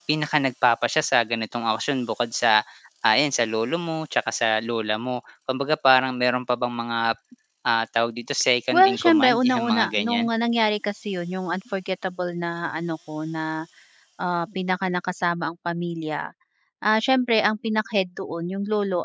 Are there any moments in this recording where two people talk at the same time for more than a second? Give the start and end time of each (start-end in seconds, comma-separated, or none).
8.7-10.3